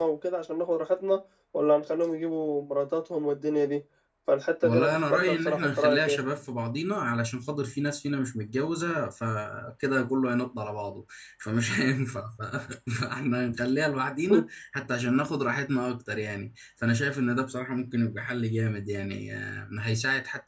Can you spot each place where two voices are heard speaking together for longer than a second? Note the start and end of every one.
4.6-6.2

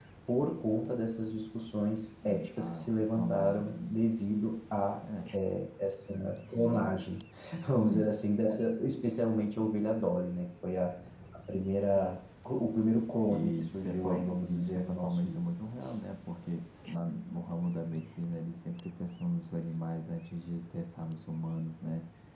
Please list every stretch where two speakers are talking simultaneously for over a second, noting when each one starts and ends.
2.2-3.7, 13.3-15.3

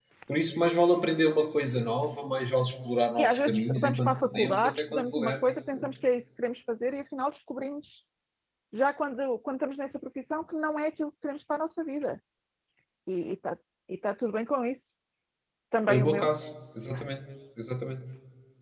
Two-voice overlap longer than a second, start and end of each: 3.2-5.5

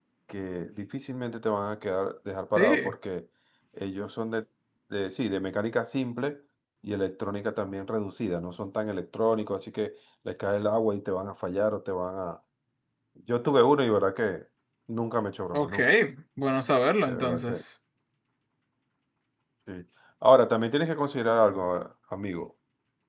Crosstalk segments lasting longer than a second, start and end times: none

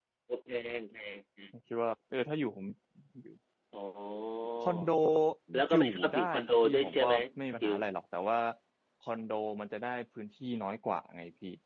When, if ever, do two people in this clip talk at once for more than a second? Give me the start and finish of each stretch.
5.7-7.1

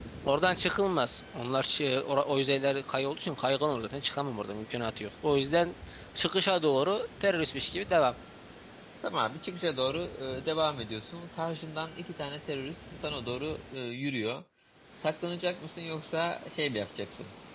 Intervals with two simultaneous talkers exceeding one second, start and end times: none

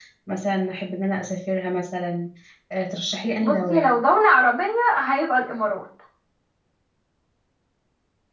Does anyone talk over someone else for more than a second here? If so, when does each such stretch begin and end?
none

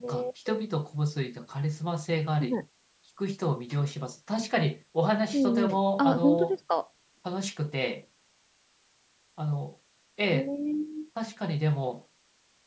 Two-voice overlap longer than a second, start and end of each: 5.3-6.6

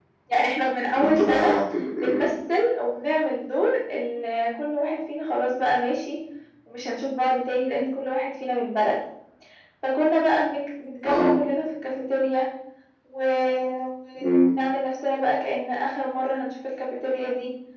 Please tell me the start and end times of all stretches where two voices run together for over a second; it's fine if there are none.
none

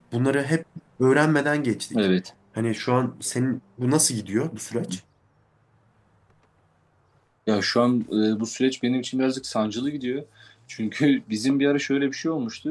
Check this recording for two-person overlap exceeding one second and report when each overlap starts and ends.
none

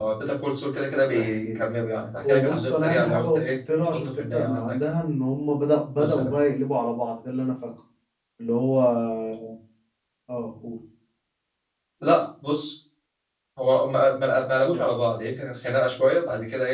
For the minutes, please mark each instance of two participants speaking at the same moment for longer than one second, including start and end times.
2.2-5.0

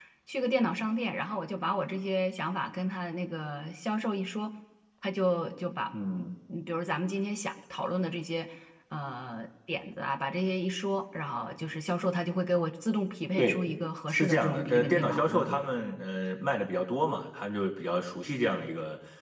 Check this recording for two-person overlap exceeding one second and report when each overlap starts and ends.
14.1-15.6

